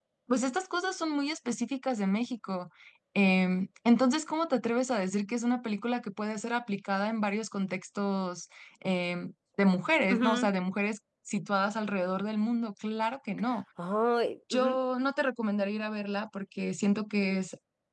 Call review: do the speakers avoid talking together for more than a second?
Yes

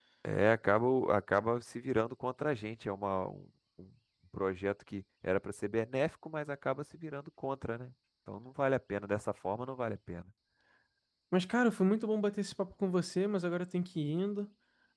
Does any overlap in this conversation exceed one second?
No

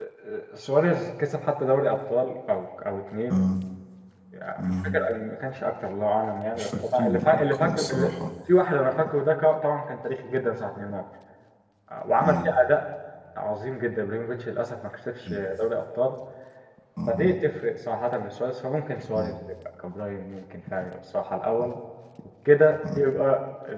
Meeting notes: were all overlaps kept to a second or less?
No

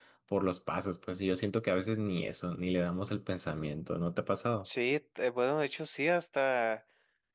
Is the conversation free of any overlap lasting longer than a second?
Yes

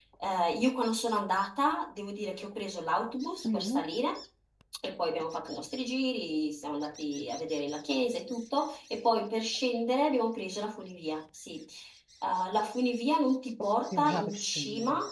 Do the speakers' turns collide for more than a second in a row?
Yes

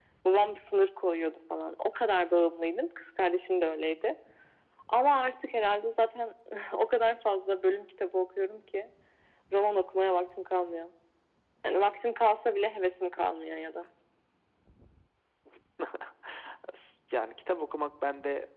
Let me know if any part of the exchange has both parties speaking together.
No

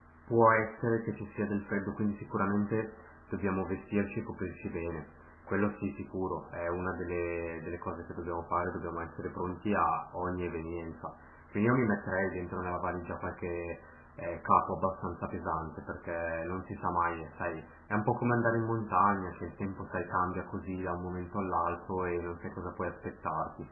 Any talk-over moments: No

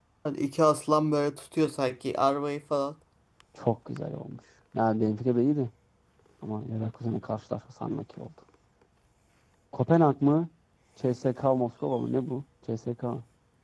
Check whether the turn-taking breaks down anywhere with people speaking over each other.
No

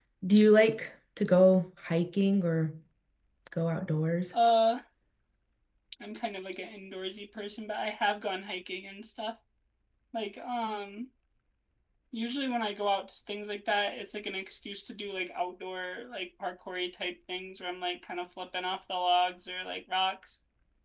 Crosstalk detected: No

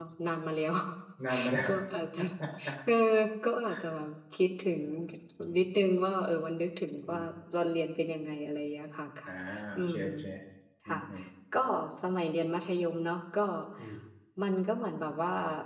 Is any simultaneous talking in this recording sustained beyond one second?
No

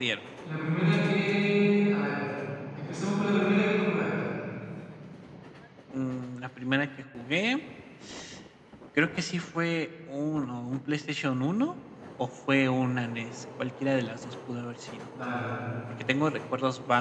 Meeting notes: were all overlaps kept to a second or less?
Yes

